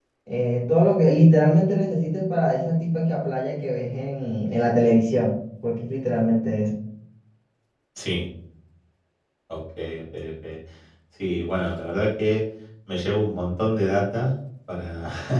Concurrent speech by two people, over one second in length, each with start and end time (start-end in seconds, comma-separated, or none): none